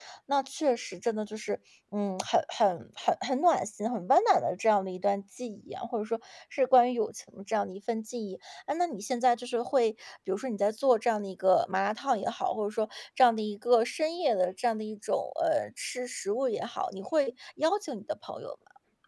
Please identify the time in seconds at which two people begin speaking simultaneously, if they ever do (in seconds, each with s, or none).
none